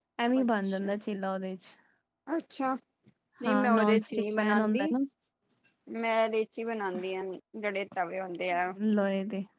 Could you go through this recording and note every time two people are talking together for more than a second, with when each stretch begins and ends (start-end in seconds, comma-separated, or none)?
3.4-4.9